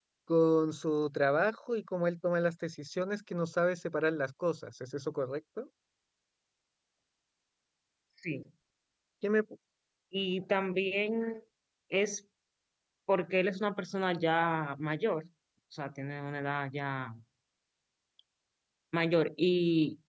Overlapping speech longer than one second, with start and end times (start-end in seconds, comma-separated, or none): none